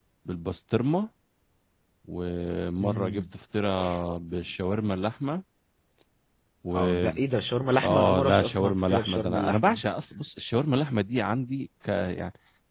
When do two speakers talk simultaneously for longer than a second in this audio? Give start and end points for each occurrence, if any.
7.8-9.8

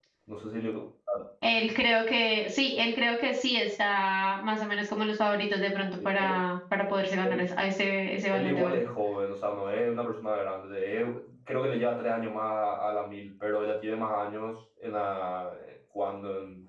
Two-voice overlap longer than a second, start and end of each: none

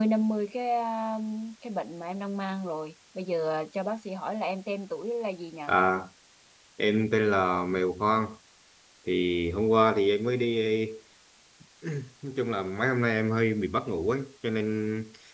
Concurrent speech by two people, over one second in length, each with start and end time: none

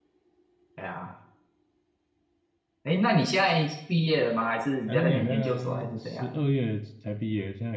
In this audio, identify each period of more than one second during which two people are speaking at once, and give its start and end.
4.9-6.3

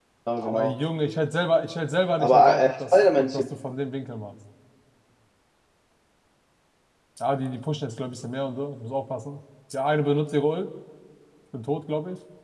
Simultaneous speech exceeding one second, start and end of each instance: 2.2-3.4

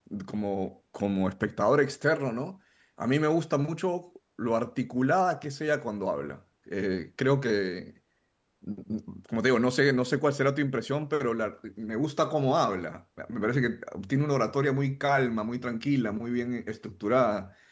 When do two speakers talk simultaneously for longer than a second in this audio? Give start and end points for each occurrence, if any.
none

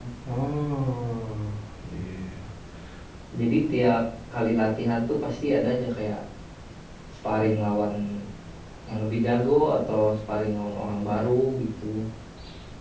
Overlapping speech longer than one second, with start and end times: none

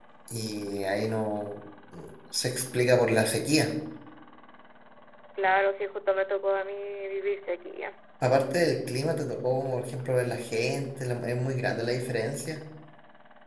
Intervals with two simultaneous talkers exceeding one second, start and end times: none

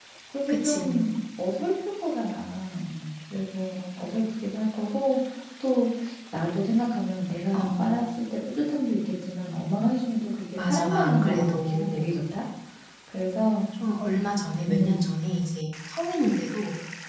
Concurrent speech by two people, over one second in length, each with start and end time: 10.6-12.1

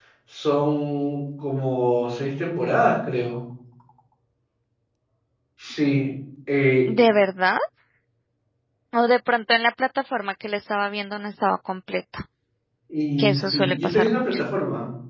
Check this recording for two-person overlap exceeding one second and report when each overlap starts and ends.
13.2-14.4

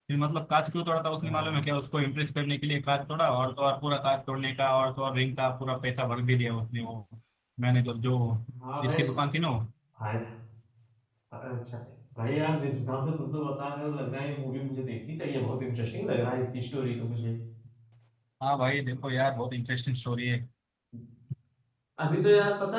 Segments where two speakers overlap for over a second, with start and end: none

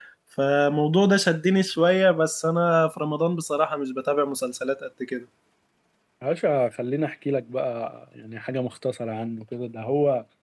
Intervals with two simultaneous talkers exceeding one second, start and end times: none

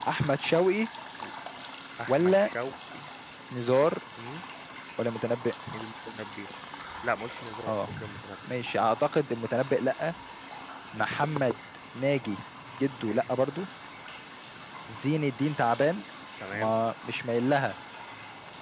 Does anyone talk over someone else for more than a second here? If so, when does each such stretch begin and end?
none

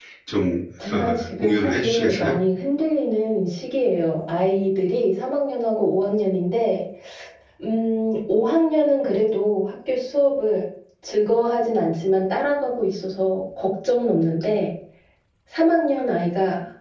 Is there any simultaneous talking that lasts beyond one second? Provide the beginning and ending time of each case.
0.9-2.3

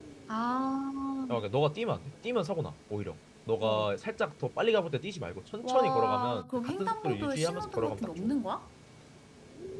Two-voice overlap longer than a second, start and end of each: 5.6-8.1

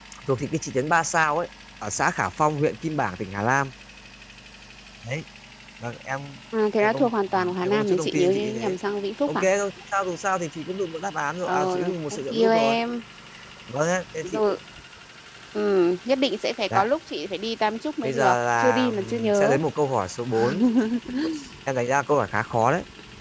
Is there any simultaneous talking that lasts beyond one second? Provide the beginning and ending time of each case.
6.8-8.8, 11.5-12.8, 18.0-19.6

